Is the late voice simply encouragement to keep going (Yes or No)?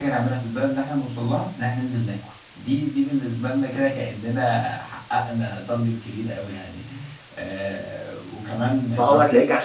No